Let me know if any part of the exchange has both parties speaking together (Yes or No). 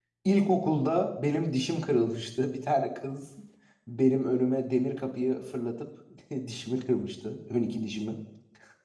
No